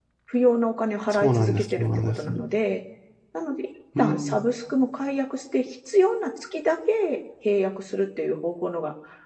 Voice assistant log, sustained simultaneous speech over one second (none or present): present